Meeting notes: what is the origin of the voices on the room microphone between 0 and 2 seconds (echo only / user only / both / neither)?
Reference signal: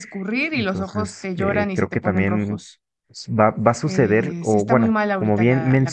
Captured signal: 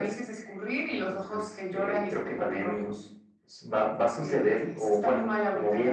echo only